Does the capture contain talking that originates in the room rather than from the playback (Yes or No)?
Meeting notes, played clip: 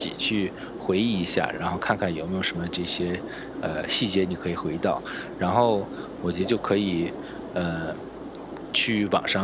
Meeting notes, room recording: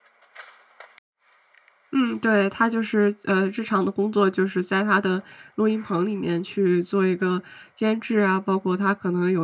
Yes